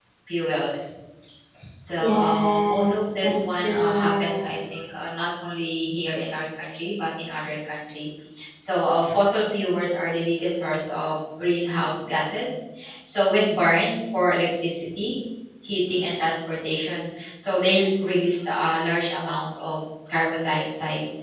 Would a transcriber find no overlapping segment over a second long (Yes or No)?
No